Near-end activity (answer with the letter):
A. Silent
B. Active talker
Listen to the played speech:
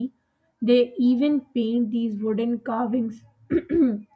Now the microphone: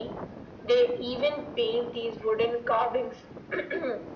A